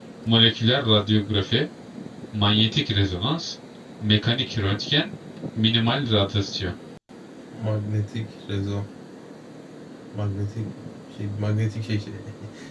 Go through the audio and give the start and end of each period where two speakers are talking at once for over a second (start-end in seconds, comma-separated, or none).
none